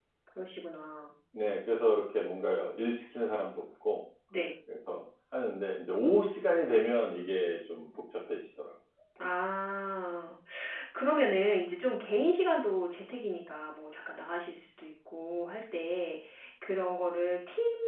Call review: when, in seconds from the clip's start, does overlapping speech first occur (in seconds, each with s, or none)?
none